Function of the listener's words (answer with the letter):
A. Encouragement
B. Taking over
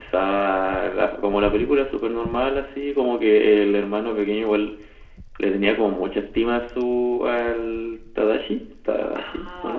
B